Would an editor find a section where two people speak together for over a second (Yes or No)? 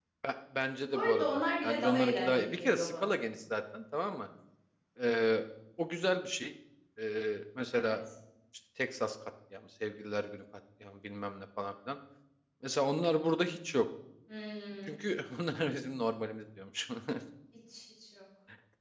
Yes